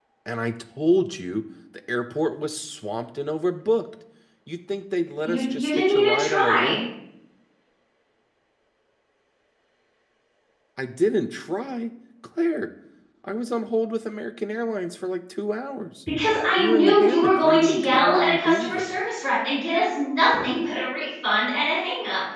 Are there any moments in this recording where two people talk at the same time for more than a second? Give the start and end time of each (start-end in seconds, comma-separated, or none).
5.2-6.8, 16.6-19.0